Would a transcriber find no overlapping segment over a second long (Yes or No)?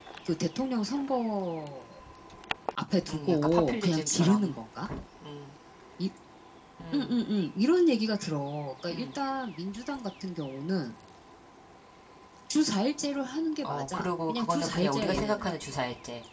No